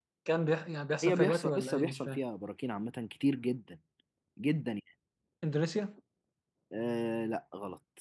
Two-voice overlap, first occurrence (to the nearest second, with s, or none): 1 s